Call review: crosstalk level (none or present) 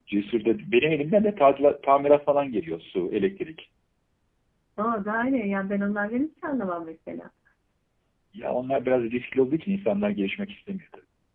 none